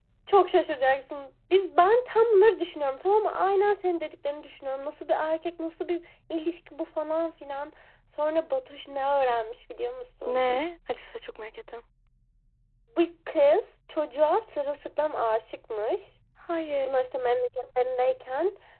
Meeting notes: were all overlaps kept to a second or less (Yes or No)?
Yes